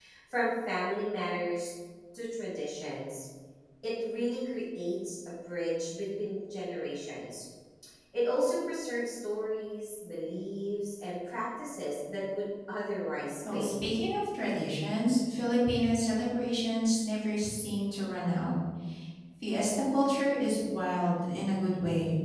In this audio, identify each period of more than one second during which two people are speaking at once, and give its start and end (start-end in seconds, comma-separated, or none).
none